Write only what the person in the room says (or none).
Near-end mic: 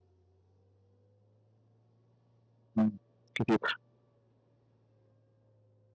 إمم، كتير.